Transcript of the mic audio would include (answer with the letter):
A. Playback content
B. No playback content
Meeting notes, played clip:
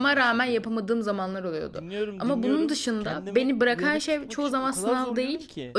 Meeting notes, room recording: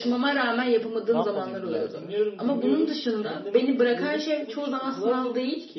A